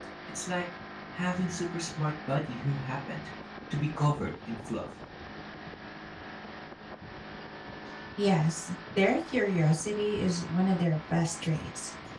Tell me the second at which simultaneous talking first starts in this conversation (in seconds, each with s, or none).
none